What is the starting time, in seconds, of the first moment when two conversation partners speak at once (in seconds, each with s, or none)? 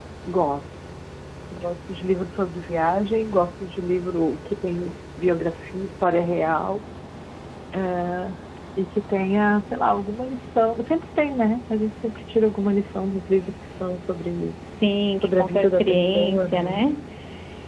15.2 s